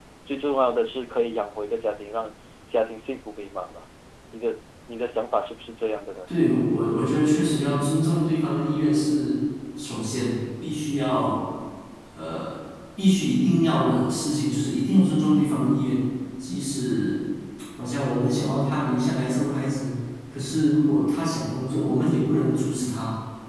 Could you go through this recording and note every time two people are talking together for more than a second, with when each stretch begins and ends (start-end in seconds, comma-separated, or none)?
none